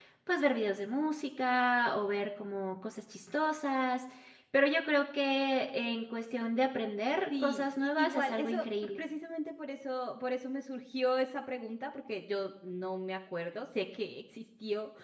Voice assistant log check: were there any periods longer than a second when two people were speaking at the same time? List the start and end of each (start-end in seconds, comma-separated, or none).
7.4-9.0